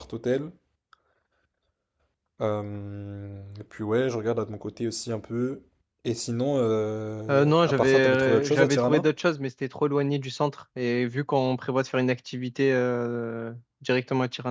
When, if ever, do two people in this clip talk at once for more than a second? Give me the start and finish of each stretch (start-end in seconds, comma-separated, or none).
7.3-9.1